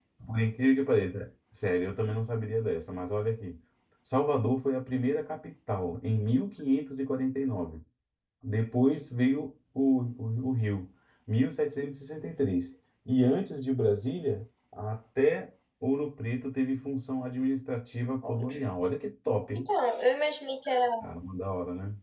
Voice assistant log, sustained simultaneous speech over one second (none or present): none